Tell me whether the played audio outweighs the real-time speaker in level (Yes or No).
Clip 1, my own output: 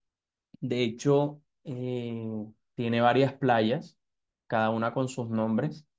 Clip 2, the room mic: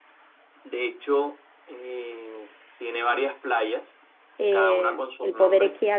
No